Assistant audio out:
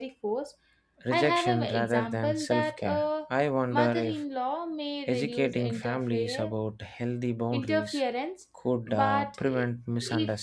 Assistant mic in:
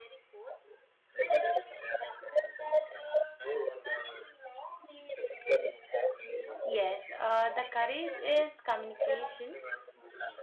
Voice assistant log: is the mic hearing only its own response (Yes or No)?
No